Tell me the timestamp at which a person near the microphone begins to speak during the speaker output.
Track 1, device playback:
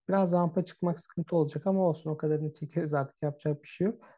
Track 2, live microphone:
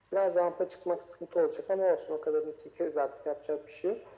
none

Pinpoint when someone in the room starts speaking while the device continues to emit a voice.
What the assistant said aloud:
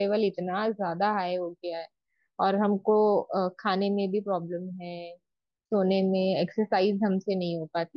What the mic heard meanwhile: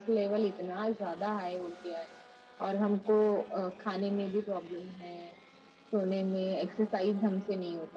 none

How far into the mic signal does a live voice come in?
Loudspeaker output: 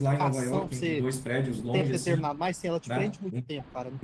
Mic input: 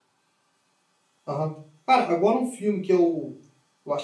1.3 s

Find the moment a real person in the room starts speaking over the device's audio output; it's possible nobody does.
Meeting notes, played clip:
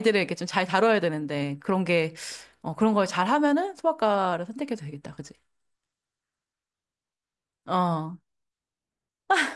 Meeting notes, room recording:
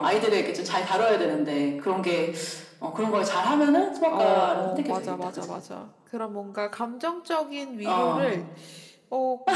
4.1 s

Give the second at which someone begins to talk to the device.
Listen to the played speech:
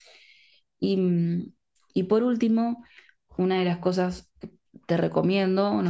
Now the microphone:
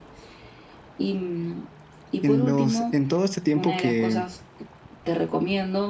2.2 s

